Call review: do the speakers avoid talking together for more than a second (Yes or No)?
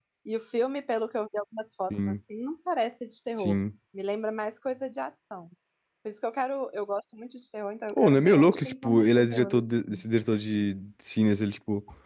No